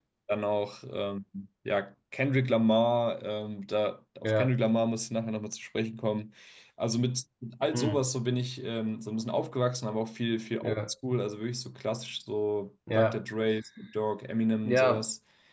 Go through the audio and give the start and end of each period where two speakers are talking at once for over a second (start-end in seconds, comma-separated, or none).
none